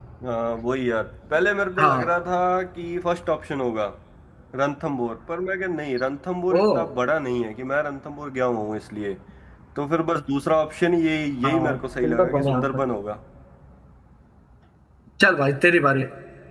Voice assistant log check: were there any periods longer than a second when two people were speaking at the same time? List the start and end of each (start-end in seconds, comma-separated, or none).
11.4-12.8